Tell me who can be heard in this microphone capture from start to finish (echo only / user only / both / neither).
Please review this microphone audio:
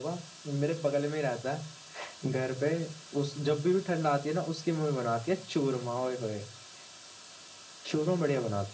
echo only